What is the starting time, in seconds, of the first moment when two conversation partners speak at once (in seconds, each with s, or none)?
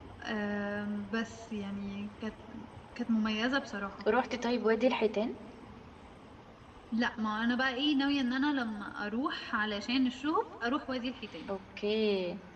none